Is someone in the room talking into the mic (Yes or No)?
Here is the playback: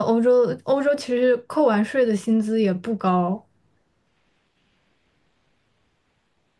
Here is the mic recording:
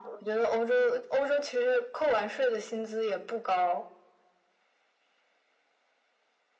No